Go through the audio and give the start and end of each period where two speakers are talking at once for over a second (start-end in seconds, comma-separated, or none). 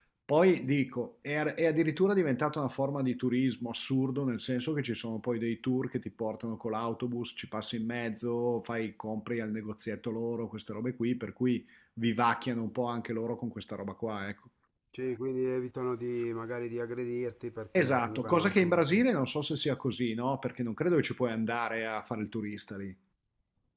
17.8-19.0